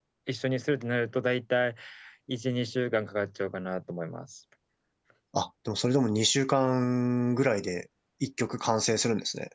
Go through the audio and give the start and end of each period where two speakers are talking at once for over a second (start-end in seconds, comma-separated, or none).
none